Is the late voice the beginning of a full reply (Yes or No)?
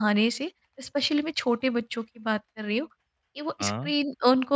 No